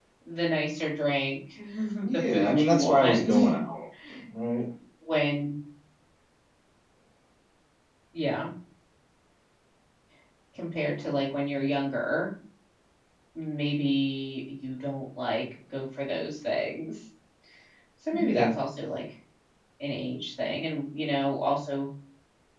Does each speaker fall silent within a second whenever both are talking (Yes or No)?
No